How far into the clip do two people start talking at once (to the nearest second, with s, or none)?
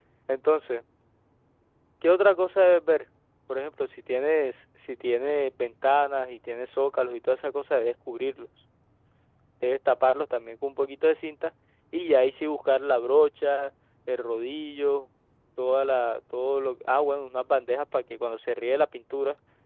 none